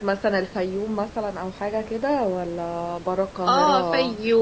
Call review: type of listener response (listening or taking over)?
taking over